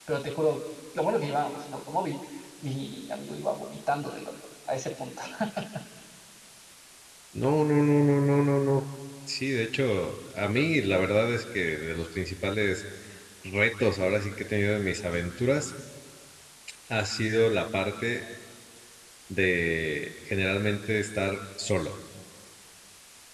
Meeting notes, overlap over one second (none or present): none